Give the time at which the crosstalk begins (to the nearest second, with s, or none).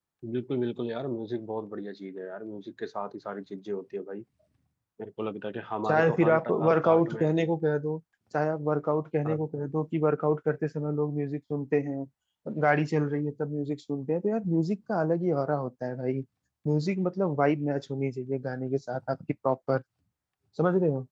6 s